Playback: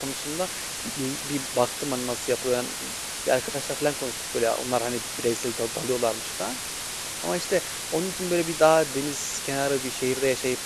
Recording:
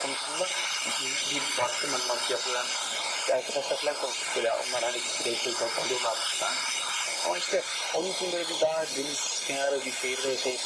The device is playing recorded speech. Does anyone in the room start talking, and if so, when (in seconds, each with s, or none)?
none